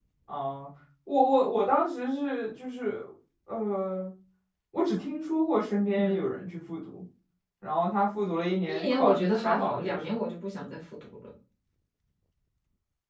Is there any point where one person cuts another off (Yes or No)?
Yes